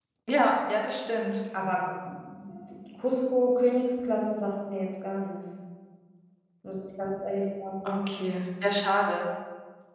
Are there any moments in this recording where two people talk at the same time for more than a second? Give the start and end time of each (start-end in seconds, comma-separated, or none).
none